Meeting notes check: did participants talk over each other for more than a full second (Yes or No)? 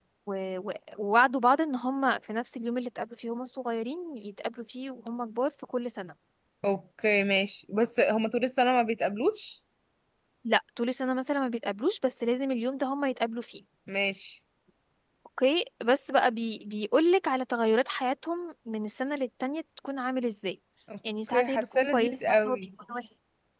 Yes